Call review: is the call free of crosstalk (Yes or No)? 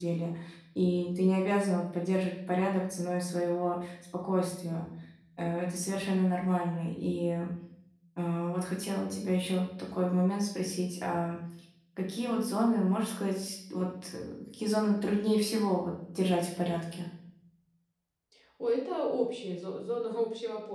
Yes